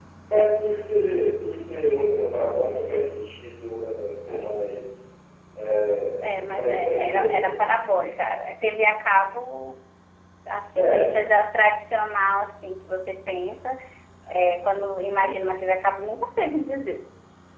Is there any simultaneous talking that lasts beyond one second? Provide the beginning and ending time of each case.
6.2-7.6

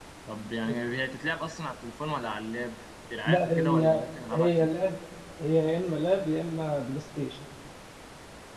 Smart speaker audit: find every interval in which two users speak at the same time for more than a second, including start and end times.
3.2-4.5

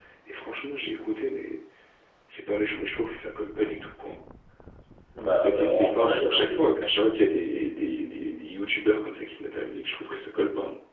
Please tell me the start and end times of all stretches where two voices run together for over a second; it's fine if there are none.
5.4-6.7

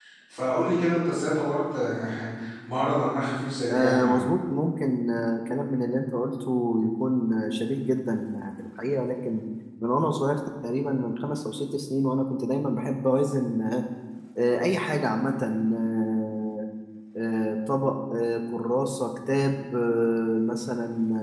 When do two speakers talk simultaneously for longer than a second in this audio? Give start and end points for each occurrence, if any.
none

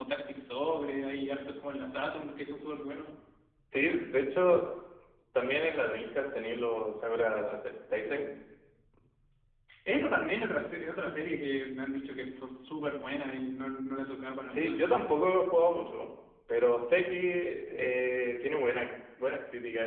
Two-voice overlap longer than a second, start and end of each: none

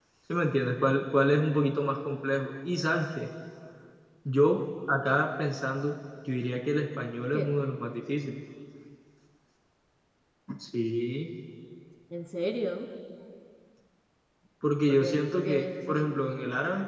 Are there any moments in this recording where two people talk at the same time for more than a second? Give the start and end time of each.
14.9-16.1

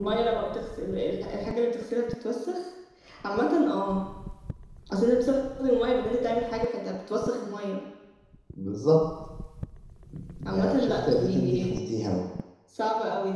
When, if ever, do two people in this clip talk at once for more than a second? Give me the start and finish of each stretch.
10.4-11.7

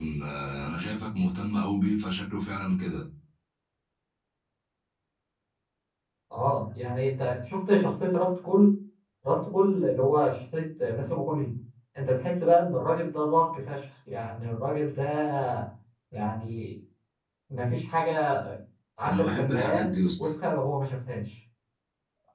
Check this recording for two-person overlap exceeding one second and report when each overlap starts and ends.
19.1-20.2

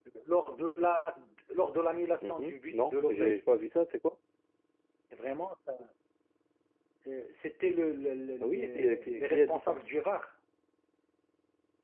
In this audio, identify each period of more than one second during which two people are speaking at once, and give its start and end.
2.2-3.4, 8.4-9.8

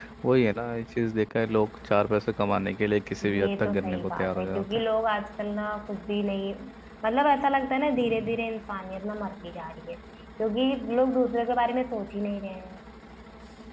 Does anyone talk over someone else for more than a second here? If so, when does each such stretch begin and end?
3.4-4.8

